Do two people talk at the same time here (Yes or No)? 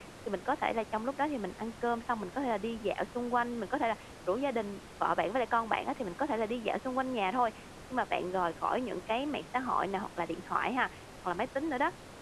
No